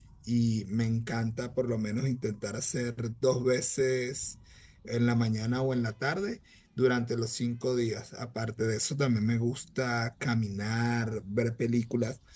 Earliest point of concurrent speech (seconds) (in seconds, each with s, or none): none